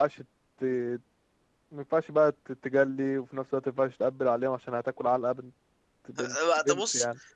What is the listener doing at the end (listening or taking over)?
taking over